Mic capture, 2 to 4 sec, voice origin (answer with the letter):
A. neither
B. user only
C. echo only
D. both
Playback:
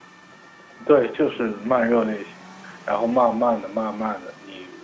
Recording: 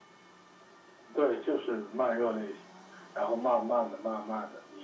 C